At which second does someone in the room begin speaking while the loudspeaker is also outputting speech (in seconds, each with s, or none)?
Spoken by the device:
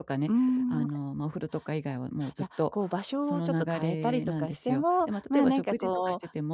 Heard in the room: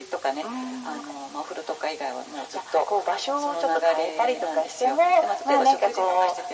none